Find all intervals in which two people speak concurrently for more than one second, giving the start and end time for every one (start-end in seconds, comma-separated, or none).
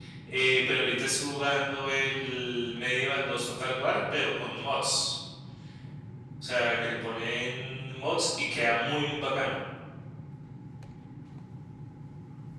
none